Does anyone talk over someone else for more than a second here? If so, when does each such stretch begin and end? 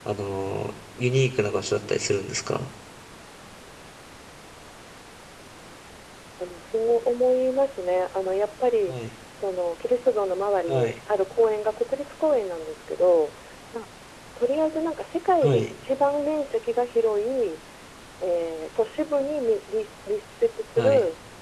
none

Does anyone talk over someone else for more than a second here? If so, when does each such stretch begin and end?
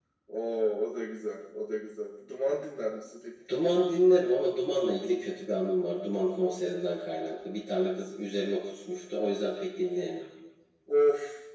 none

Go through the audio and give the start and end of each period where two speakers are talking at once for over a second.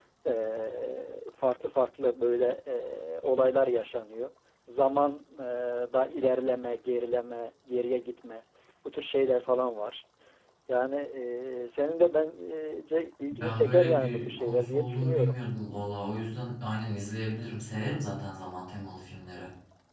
13.4-15.4

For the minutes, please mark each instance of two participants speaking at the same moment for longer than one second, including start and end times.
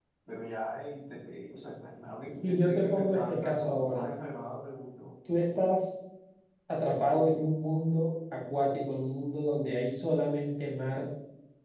2.3-4.0

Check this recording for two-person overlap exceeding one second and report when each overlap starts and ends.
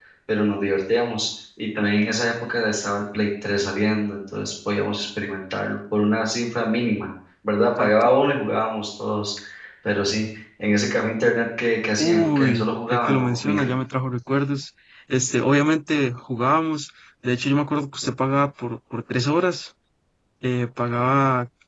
12.0-13.7

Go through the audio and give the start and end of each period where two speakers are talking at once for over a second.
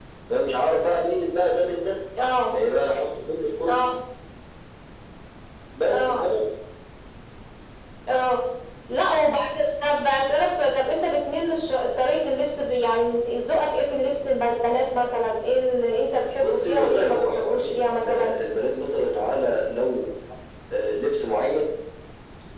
16.4-18.3

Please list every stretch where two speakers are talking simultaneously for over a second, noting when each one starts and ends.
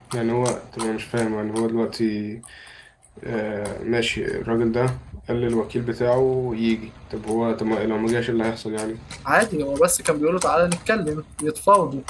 none

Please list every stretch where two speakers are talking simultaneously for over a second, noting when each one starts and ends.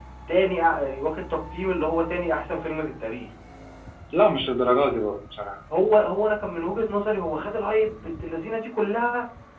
none

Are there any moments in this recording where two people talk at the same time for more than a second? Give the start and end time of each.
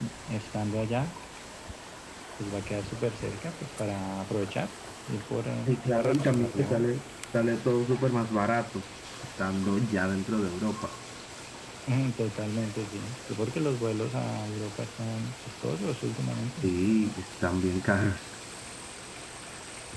5.7-6.9

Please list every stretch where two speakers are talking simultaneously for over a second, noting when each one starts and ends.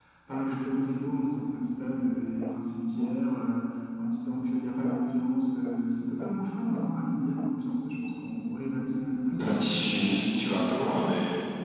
9.4-10.9

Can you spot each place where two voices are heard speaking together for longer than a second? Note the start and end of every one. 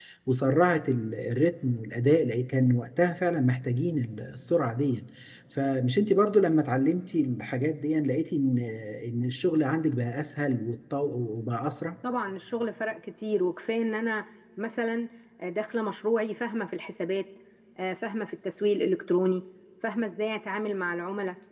none

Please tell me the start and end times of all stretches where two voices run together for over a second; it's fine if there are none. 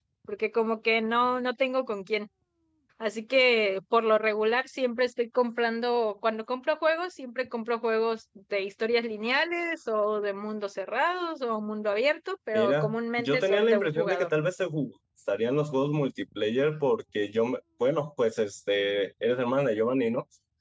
12.5-14.3

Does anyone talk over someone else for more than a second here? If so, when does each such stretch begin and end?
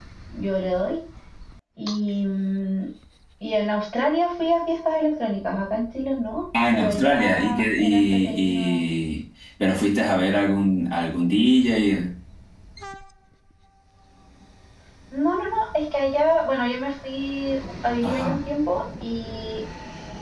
6.7-8.7

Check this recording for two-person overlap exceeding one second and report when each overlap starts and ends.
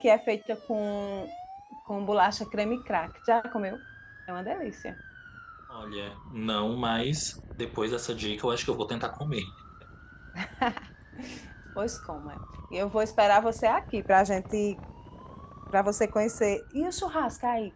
none

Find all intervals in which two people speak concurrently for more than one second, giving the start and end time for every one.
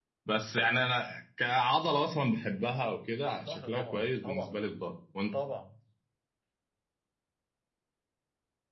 3.4-4.6

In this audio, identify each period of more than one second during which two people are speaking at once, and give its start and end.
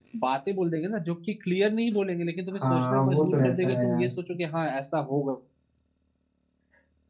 2.7-4.1

